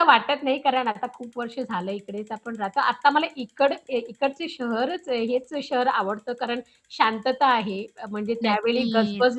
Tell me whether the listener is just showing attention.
Yes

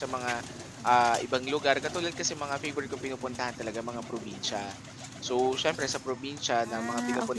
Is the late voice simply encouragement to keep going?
Yes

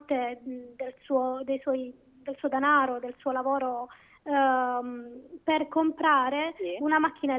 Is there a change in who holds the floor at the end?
No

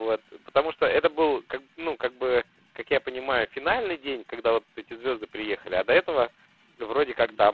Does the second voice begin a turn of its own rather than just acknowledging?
Yes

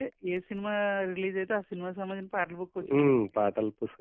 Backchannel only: No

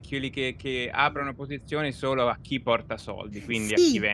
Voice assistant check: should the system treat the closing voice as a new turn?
Yes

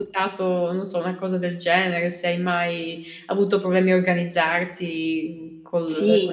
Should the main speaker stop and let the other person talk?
Yes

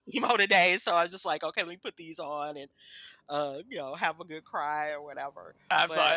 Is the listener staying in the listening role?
No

